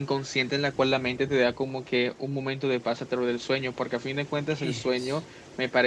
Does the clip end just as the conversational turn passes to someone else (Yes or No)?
No